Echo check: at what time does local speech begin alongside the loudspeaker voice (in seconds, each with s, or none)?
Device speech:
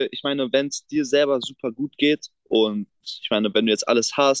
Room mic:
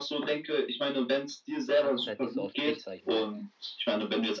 1.6 s